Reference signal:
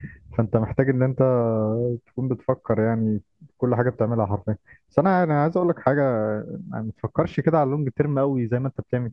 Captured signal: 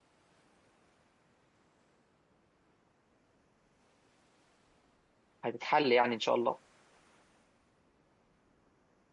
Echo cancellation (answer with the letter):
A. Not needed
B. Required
A